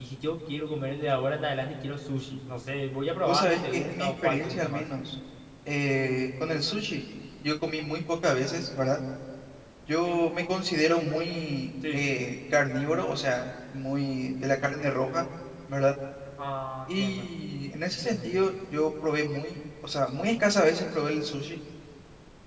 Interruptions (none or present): present